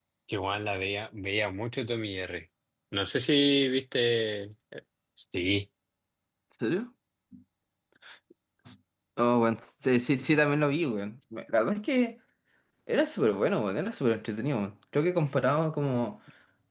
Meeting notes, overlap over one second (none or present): none